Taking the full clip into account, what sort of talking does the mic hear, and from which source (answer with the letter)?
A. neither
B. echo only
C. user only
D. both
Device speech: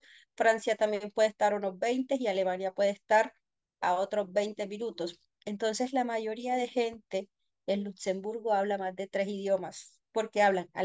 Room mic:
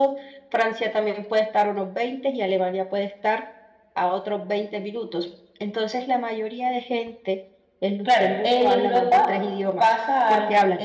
D